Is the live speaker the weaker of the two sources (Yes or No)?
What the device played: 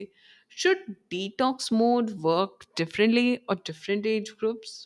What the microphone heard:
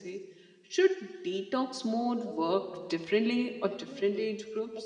Yes